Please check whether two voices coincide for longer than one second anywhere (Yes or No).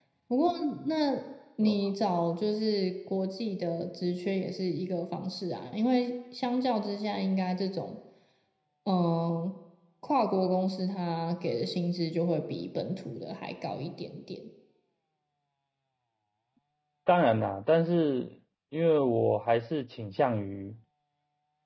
No